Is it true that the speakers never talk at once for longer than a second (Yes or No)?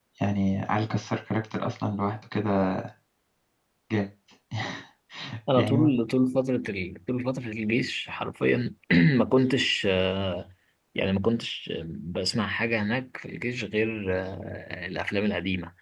Yes